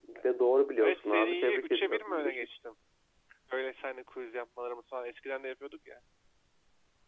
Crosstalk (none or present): present